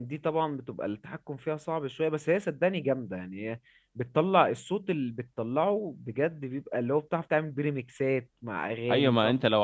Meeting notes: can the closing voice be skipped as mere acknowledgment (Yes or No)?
No